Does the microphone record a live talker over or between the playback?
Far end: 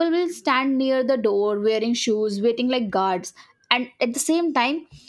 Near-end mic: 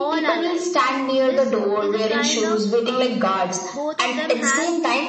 Yes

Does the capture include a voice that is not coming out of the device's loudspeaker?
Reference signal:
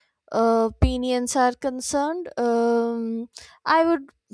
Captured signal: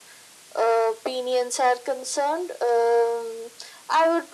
No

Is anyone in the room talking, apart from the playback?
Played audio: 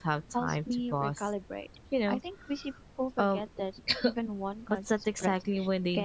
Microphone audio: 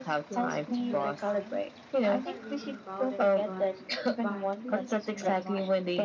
Yes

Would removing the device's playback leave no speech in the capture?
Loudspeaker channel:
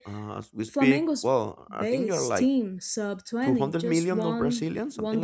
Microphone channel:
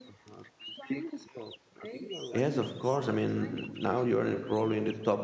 No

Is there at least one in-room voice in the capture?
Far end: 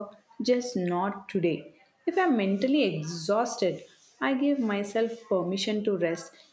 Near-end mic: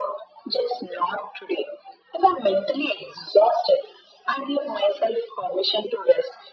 No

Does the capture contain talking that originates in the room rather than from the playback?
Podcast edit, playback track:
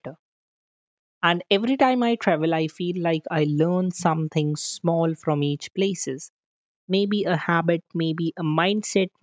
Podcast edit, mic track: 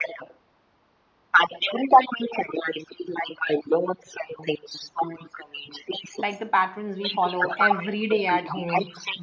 Yes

